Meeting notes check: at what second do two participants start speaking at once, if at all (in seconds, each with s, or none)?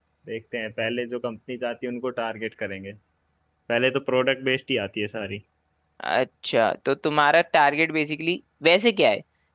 none